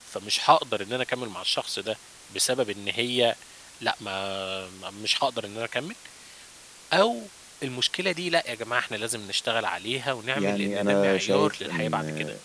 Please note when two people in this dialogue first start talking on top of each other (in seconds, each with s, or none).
10.3 s